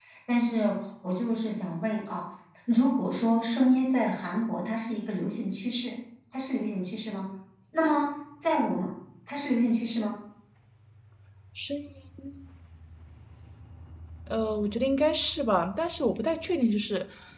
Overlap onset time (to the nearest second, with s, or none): none